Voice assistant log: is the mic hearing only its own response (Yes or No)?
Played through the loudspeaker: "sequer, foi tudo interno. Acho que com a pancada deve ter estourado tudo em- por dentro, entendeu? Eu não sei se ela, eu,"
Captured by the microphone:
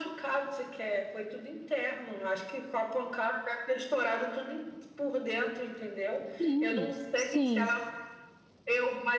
No